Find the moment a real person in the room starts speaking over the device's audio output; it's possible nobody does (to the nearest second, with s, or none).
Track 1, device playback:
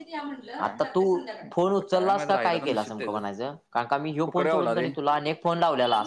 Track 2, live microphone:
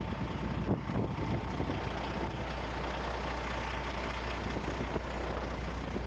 none